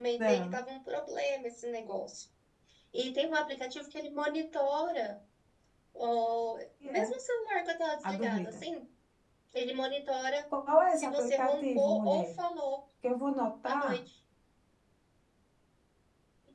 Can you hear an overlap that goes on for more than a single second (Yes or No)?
Yes